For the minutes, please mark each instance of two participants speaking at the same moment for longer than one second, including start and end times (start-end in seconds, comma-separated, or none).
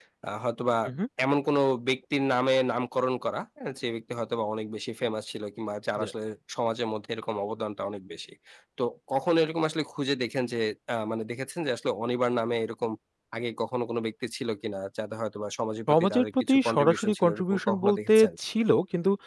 15.9-18.3